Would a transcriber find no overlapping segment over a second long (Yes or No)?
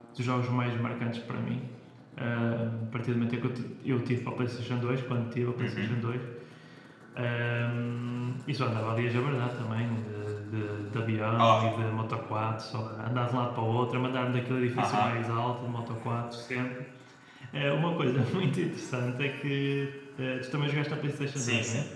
Yes